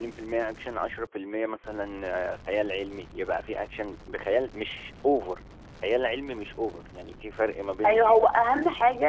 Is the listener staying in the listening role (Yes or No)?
No